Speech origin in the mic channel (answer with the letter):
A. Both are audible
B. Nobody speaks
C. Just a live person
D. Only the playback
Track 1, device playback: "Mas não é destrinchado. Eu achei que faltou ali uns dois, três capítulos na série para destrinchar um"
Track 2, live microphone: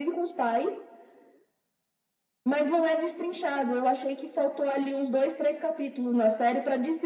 D